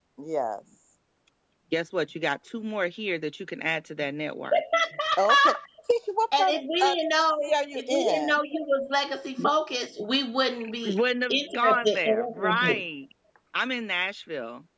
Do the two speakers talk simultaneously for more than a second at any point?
Yes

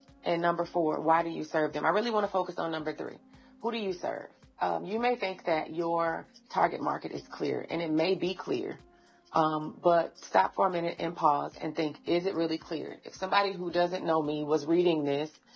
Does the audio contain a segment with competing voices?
No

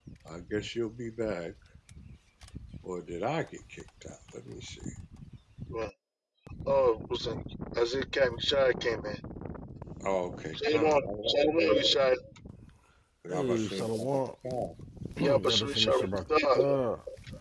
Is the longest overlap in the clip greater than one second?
Yes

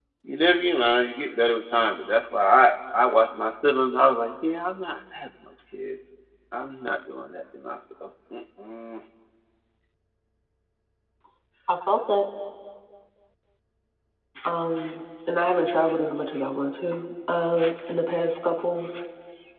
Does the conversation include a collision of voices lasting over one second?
No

